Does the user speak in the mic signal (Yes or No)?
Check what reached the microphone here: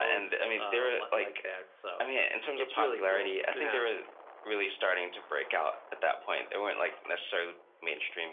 No